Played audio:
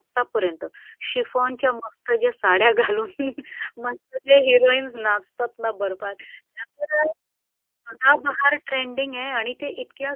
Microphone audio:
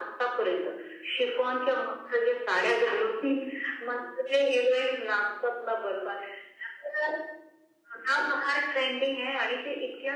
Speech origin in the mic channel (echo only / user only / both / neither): echo only